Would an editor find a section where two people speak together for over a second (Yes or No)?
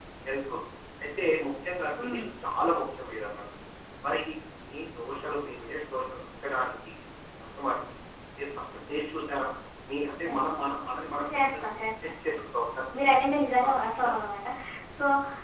No